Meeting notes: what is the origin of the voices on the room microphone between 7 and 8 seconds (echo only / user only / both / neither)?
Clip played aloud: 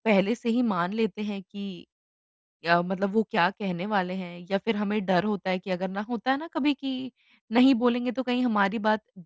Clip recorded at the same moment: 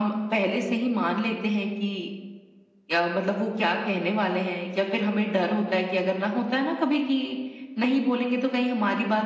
echo only